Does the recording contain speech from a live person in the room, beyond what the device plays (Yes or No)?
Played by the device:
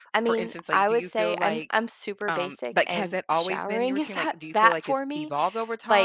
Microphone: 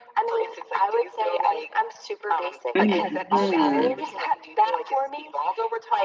Yes